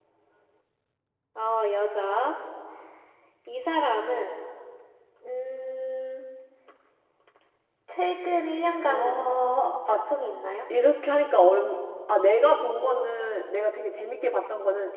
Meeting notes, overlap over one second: none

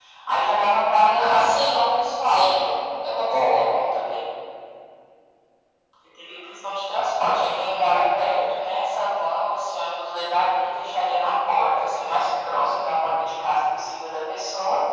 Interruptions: present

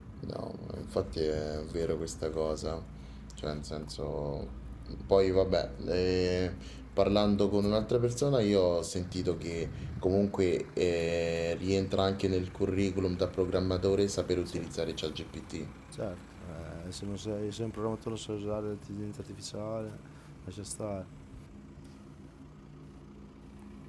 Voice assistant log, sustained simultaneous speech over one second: none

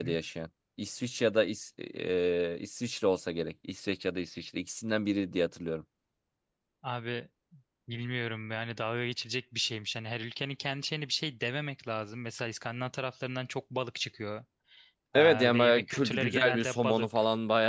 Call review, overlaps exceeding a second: present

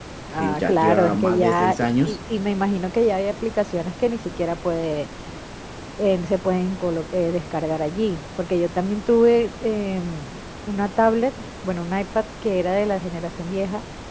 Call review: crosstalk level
present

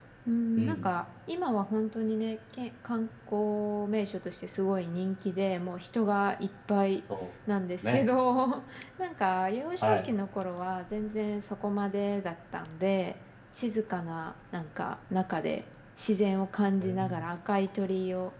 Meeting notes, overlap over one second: none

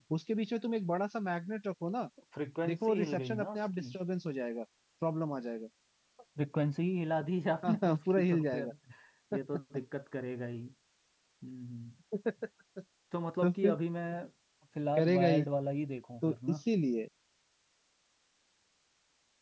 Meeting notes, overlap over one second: present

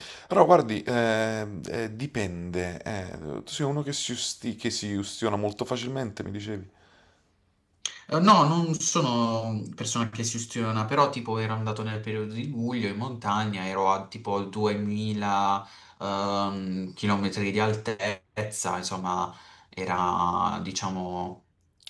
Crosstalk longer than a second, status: none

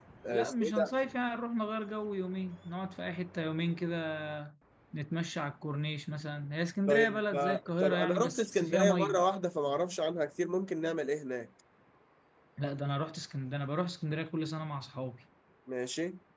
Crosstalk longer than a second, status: present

